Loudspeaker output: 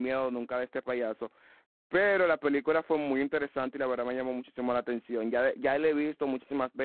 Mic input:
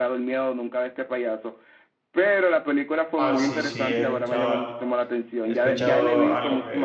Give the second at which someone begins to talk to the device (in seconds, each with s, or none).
3.1 s